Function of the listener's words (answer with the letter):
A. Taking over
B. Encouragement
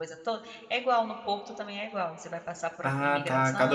A